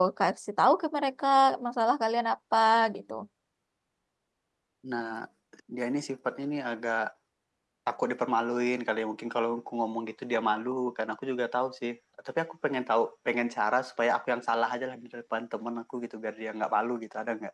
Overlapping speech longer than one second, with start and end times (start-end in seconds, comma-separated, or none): none